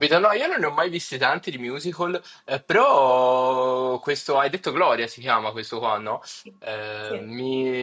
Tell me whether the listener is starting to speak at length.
No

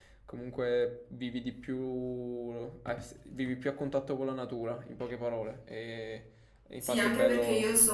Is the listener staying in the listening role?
No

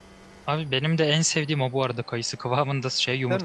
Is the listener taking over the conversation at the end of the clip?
No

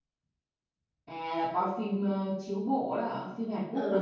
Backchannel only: No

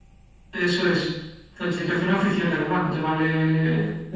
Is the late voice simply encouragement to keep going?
Yes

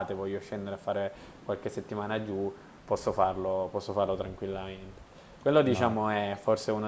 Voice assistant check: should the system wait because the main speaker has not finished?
Yes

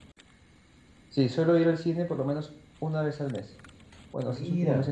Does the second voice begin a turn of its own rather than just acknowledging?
No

